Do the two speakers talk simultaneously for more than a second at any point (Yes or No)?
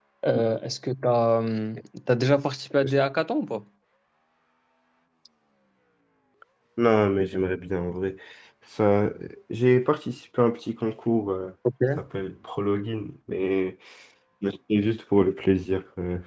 No